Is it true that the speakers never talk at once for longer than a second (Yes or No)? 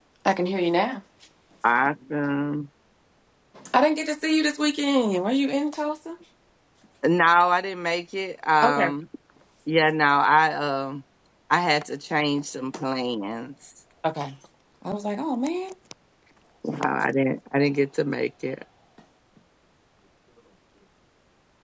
Yes